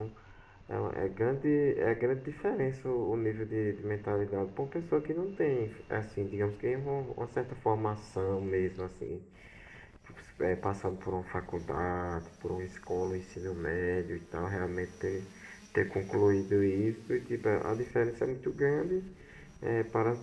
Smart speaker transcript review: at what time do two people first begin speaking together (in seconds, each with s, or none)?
none